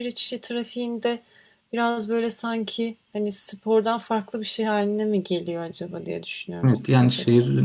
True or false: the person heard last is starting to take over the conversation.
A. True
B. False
A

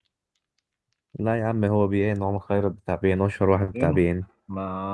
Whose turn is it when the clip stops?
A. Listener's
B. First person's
A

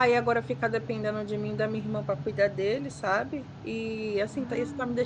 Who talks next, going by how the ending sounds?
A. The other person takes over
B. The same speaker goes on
B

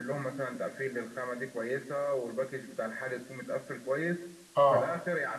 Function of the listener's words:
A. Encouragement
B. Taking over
A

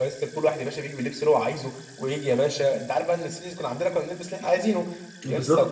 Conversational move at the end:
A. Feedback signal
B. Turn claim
A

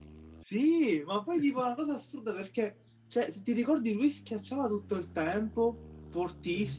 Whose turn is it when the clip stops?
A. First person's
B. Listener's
A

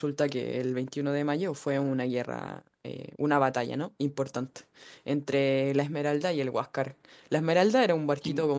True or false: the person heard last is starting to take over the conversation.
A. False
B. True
A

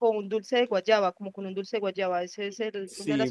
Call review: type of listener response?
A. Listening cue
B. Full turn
B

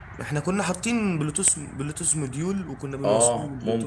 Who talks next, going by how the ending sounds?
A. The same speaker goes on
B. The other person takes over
B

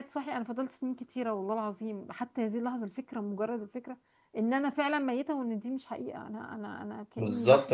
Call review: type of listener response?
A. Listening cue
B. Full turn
B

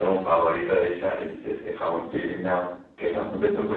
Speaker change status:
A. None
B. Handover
A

